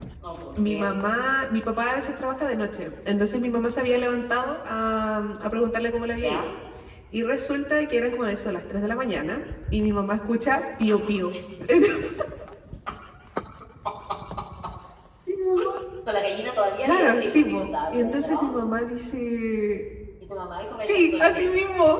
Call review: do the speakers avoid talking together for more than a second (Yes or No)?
No